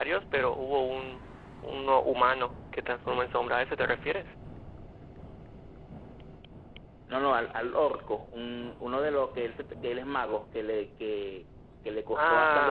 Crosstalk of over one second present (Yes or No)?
No